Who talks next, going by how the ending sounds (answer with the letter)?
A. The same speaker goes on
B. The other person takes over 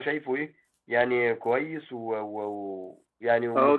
B